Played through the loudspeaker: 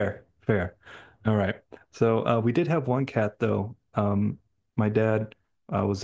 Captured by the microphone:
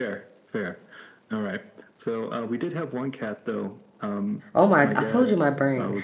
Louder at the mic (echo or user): user